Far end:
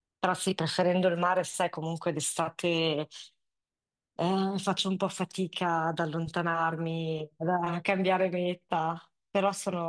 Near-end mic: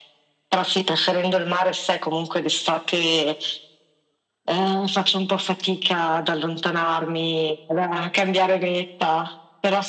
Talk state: echo only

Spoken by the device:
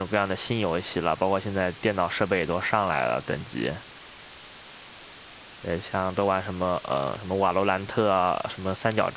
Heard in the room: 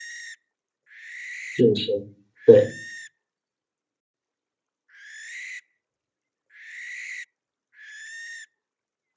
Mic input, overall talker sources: user only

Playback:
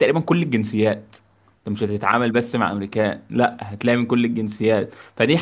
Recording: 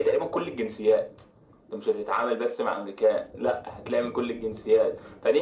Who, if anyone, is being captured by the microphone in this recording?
echo only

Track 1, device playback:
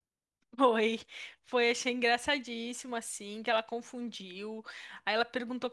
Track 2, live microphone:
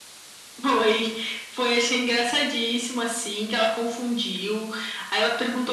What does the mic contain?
echo only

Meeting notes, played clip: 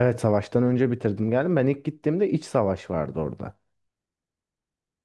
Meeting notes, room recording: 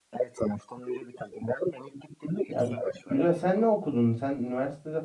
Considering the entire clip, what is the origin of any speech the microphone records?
both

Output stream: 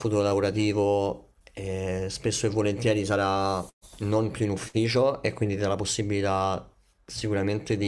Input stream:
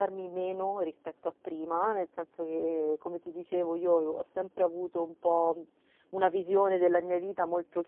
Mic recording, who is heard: user only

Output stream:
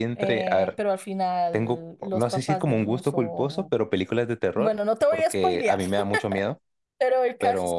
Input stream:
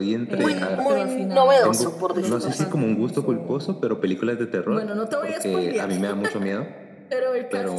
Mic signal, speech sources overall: both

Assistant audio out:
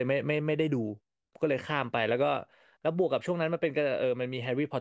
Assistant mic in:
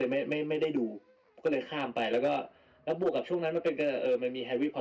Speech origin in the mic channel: echo only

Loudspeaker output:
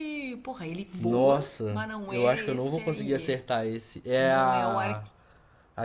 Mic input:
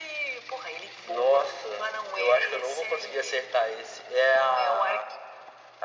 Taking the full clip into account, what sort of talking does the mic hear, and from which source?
echo only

